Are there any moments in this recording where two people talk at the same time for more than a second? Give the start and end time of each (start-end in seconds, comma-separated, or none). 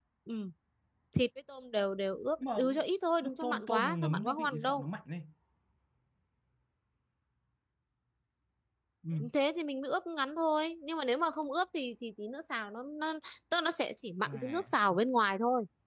3.2-4.8